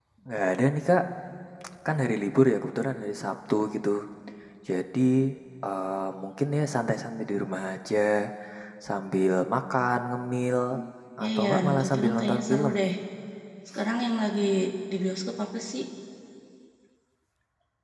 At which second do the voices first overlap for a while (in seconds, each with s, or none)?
11.3 s